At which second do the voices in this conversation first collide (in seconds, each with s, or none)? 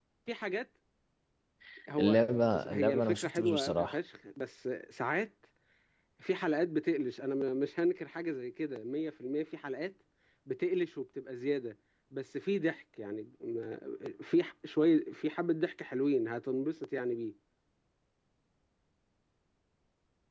2.0 s